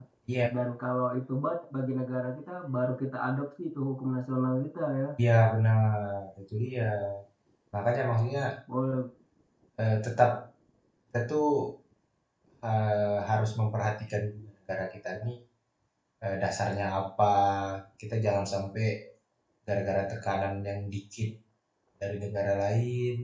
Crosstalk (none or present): none